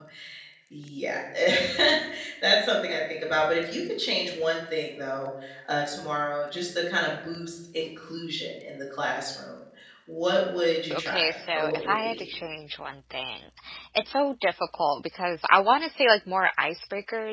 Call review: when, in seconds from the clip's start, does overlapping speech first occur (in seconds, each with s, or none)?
10.9 s